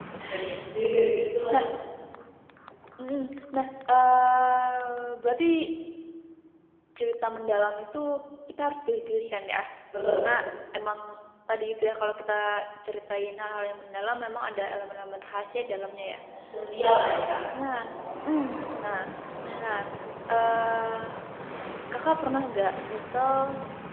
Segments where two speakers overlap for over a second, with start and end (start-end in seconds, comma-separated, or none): none